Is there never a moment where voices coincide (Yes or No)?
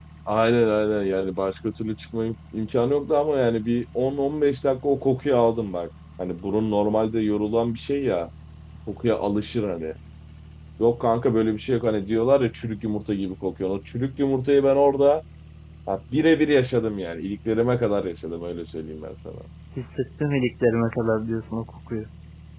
Yes